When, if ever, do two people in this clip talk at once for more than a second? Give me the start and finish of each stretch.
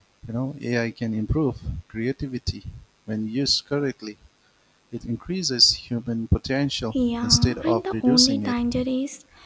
6.9-8.6

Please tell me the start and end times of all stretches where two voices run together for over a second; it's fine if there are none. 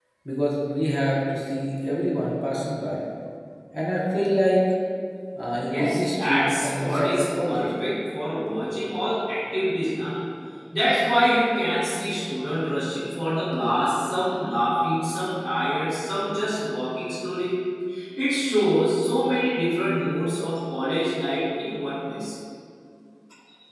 5.7-7.7

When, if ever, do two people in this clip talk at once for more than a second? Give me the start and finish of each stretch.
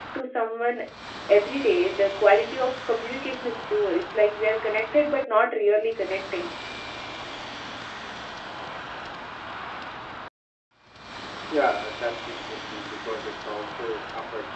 none

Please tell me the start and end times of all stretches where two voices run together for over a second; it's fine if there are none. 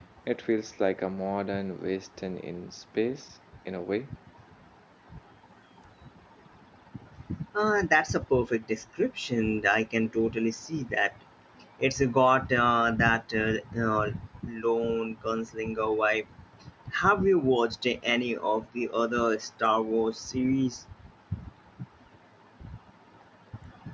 none

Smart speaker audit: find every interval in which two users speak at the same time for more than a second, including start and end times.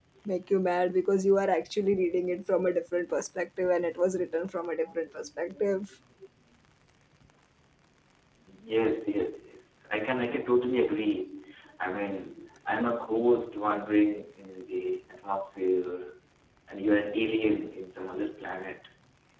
none

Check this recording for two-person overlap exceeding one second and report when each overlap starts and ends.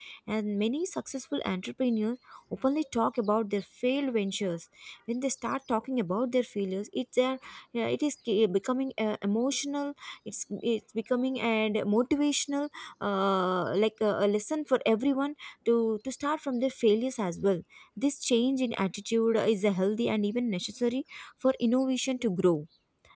none

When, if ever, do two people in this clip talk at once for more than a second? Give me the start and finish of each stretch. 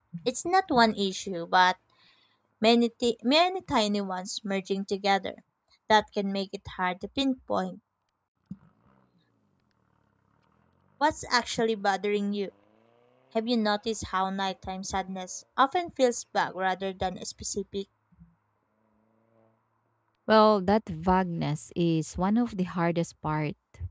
none

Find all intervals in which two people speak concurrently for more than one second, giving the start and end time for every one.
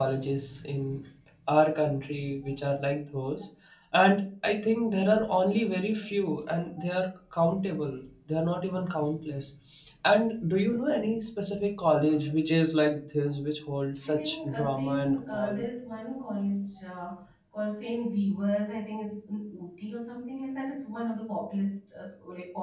14.0-15.6

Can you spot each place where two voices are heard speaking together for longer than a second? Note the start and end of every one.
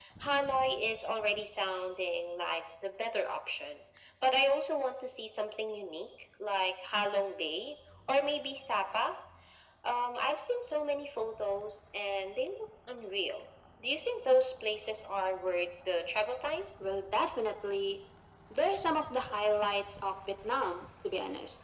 none

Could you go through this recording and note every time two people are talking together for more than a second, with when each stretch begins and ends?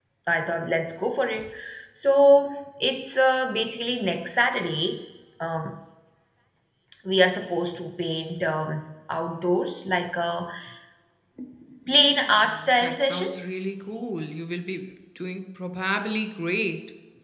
11.9-13.3

